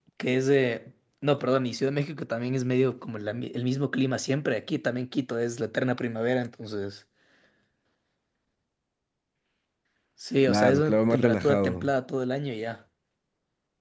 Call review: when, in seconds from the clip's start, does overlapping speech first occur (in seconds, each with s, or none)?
10.4 s